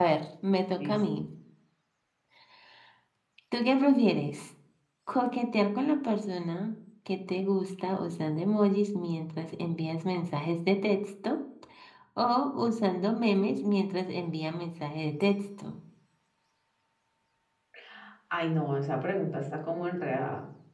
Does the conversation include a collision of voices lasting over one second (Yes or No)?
No